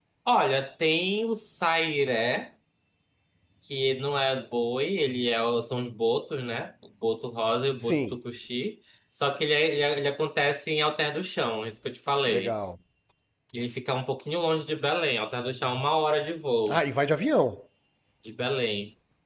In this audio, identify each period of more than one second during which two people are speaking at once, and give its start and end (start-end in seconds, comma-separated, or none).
none